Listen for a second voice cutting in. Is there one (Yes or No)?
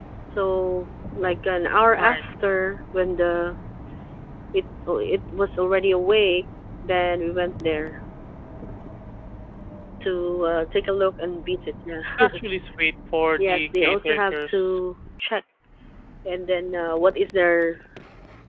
Yes